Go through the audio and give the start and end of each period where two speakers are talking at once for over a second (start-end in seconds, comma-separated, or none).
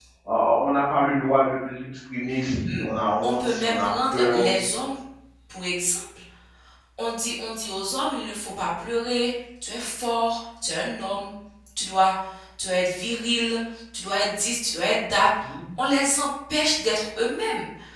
3.2-4.5